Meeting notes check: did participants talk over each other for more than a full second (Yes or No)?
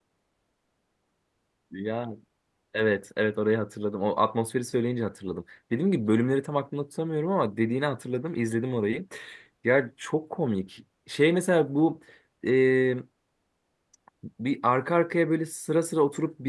No